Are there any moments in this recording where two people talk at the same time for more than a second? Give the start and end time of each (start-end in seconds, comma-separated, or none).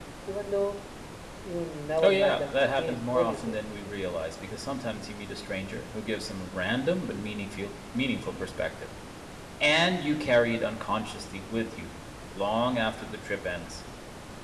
2.0-3.6